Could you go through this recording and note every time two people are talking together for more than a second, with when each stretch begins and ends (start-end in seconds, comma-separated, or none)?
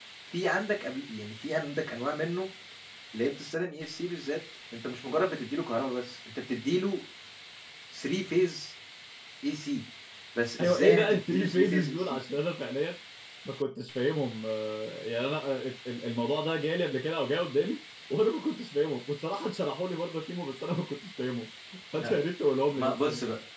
10.6-12.2